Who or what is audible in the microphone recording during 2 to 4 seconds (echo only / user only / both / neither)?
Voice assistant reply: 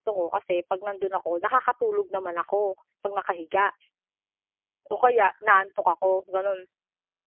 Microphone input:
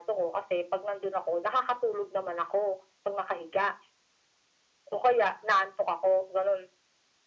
echo only